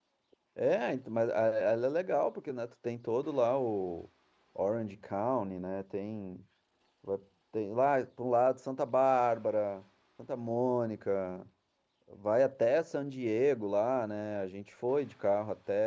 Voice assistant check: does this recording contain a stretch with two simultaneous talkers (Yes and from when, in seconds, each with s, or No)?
No